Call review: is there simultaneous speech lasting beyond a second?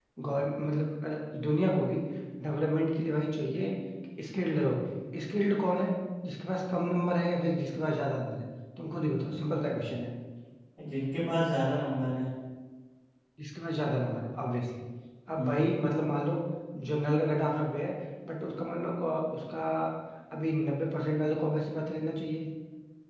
No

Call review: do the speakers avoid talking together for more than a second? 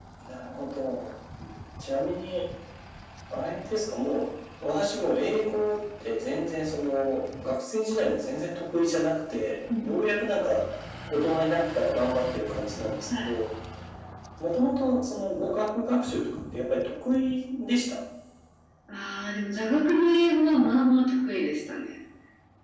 Yes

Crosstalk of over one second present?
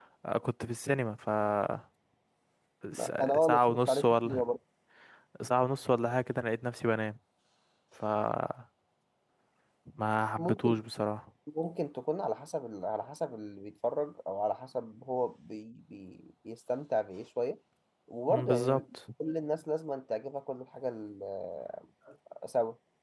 Yes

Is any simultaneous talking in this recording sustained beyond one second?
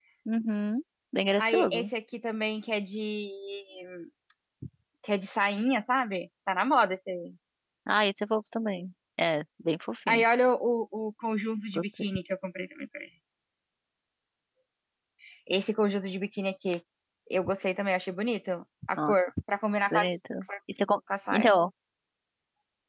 No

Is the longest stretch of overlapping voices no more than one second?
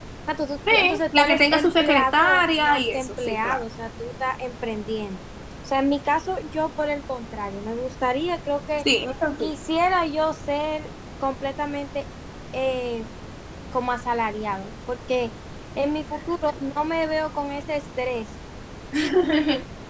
No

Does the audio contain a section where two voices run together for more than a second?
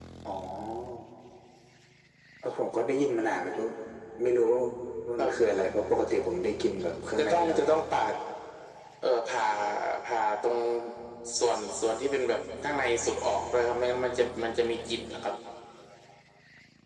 No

